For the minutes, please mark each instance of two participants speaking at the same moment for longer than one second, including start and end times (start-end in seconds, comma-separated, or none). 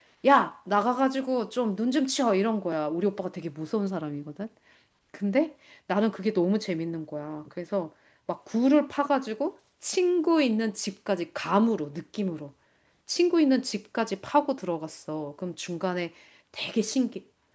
none